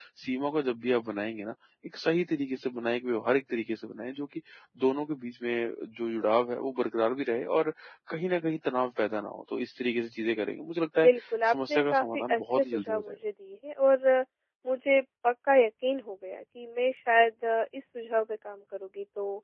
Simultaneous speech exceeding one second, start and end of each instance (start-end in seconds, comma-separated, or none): 11.5-13.2